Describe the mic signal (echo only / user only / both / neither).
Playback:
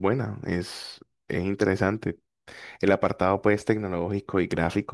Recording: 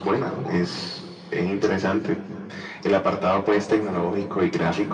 echo only